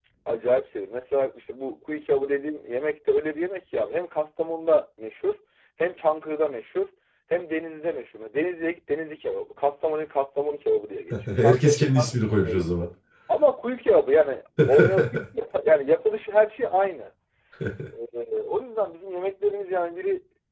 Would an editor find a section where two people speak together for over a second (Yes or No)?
Yes